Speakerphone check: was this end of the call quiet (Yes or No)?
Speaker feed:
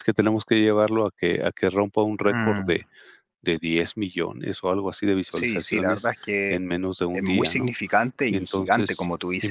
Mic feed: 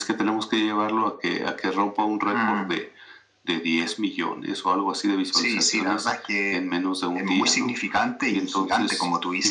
Yes